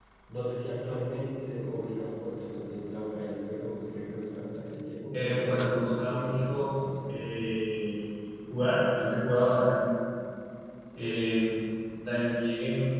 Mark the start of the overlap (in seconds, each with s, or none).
5.1 s